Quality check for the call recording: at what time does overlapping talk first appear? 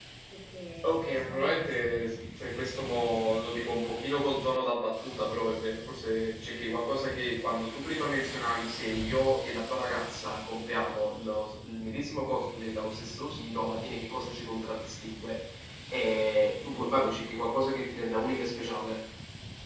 0.8 s

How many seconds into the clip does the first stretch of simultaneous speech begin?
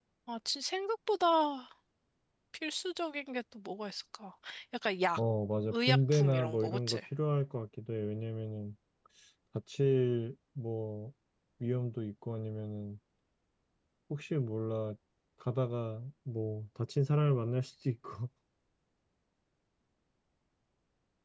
5.7 s

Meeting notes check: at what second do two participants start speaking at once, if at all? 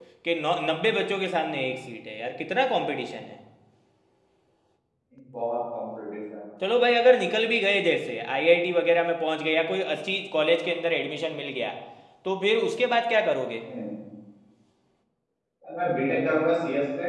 none

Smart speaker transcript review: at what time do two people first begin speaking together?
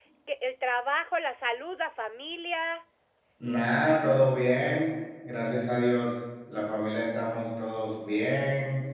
none

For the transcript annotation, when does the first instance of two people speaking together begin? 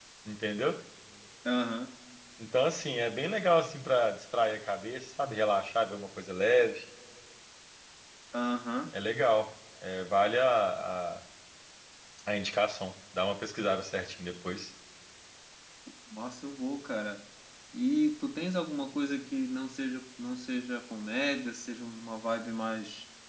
none

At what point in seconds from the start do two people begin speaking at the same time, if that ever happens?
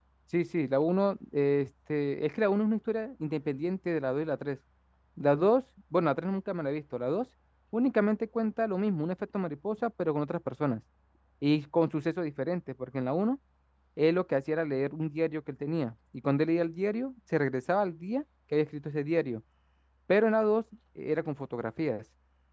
none

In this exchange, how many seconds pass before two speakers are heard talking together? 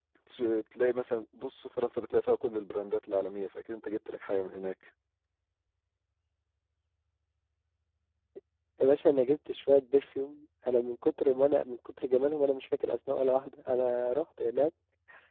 none

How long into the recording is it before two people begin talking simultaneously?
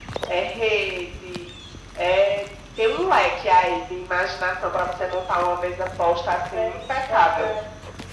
5.8 s

